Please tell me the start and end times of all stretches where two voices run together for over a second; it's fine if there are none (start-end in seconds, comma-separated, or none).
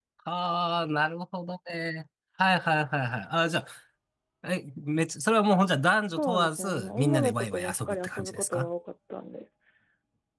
6.1-8.7